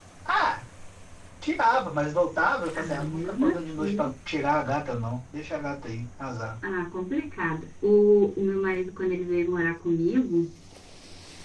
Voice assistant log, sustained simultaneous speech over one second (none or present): present